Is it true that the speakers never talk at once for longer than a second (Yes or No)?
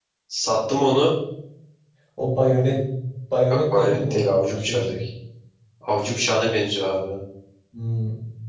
No